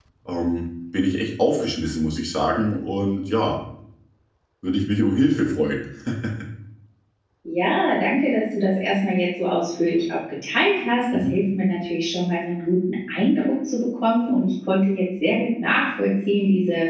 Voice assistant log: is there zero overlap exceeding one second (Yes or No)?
Yes